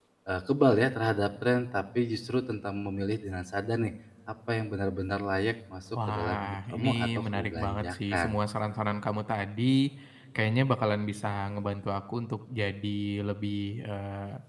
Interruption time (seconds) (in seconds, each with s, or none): 6.0 s